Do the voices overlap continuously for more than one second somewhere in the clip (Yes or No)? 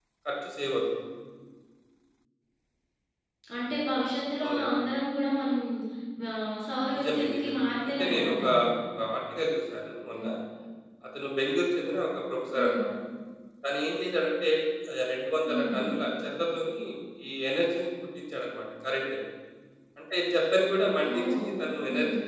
Yes